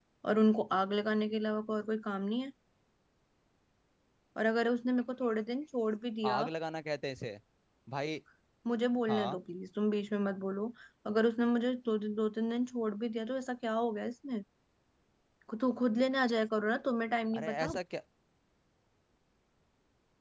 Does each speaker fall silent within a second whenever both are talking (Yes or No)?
Yes